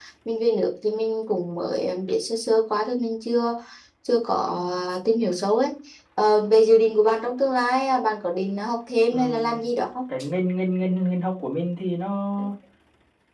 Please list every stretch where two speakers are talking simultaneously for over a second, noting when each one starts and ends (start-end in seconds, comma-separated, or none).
none